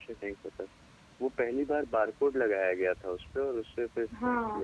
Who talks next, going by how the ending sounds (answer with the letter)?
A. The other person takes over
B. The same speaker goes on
A